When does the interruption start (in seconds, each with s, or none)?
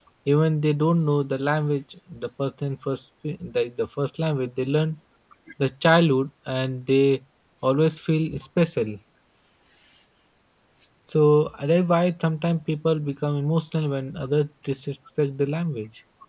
none